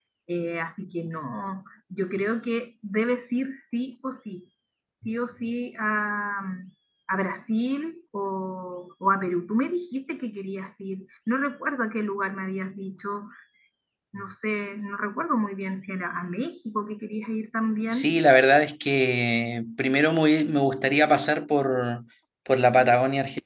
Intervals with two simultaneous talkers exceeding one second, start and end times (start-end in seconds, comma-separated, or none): none